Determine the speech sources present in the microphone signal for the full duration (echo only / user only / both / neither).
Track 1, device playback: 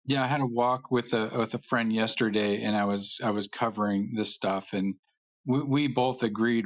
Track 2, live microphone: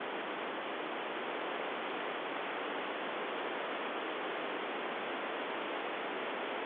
neither